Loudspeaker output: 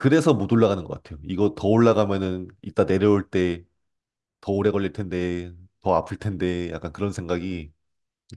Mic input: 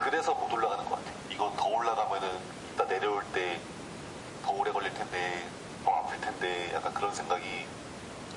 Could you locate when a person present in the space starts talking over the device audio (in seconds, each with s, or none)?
none